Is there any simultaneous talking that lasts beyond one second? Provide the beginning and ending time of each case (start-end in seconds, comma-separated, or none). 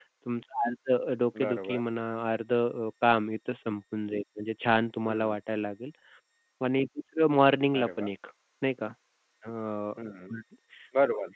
none